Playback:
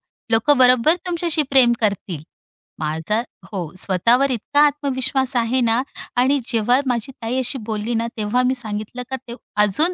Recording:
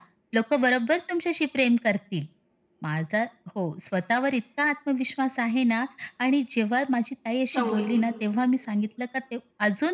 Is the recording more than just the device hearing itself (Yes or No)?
Yes